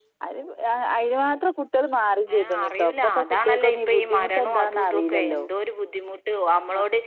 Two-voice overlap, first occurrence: 2.3 s

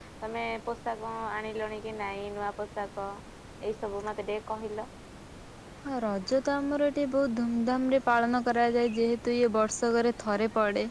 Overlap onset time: none

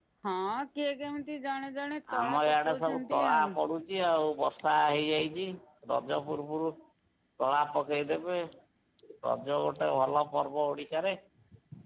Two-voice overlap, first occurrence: 2.1 s

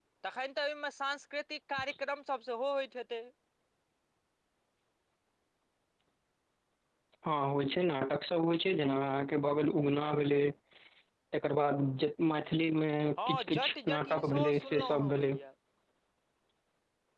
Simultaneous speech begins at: 13.2 s

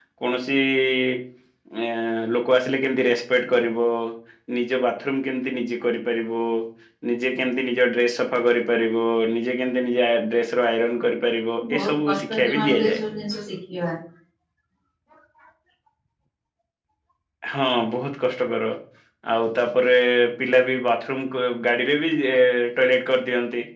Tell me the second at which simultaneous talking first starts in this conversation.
11.6 s

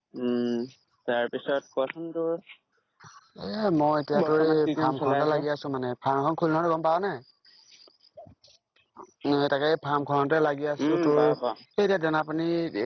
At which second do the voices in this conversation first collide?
4.2 s

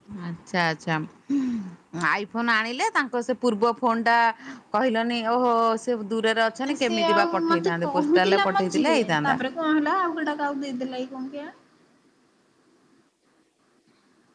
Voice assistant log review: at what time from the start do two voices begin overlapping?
6.7 s

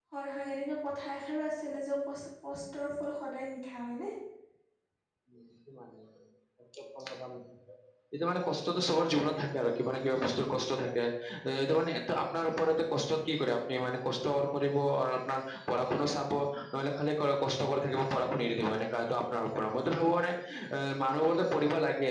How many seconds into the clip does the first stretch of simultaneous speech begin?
none

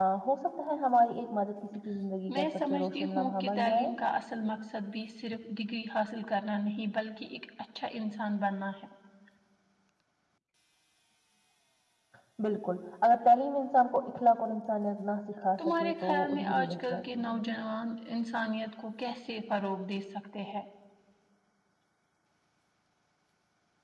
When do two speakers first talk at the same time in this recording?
2.3 s

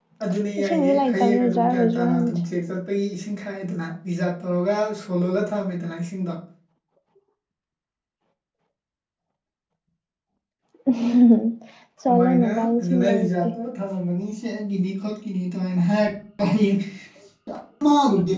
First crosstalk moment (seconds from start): 0.6 s

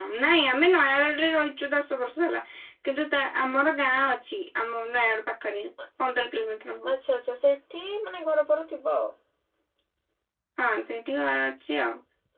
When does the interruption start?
none

